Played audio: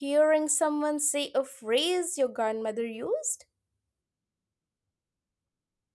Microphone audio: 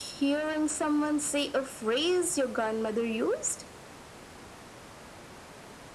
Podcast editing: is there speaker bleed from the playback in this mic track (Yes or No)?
Yes